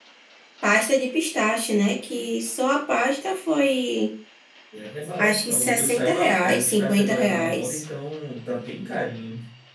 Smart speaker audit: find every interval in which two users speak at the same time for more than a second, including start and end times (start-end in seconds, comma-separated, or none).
5.2-7.8